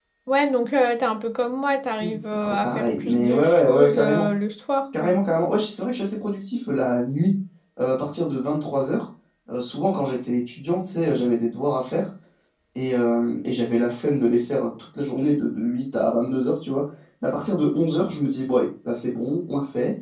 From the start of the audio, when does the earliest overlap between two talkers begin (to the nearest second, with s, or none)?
2 s